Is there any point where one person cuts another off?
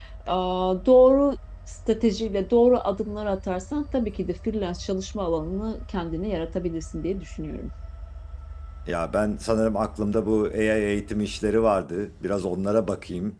No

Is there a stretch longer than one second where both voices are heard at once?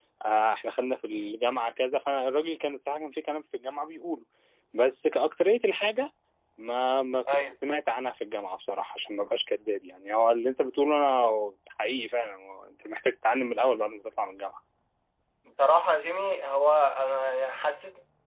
No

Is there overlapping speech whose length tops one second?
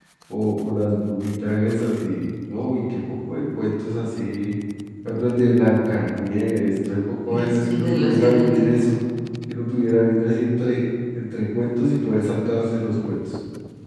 Yes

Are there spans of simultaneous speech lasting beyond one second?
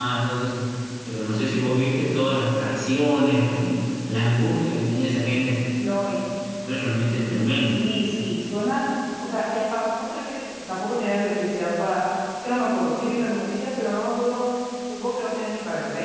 No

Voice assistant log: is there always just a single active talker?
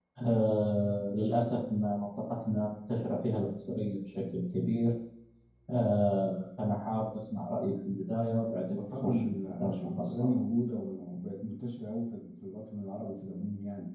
No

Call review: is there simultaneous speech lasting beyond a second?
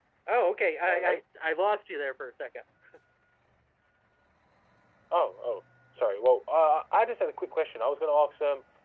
No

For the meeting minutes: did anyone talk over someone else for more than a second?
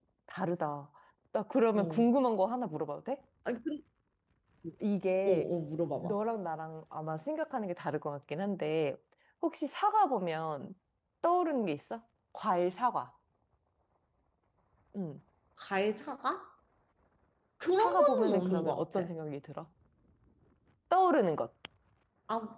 Yes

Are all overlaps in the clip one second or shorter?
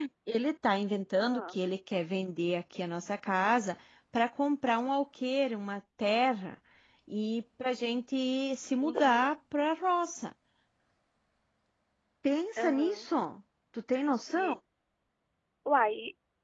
Yes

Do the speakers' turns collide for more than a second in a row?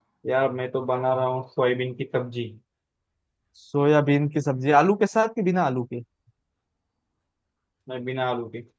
No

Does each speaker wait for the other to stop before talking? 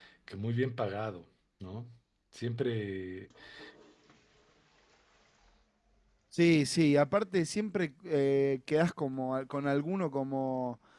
Yes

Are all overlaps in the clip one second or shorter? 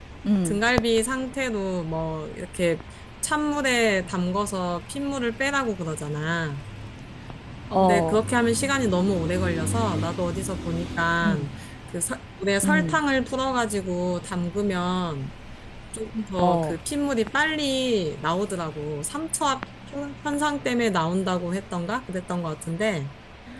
Yes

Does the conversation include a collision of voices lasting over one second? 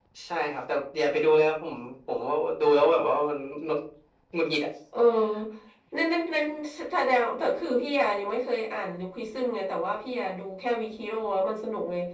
No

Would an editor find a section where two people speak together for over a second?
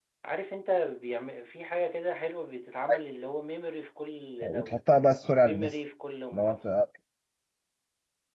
No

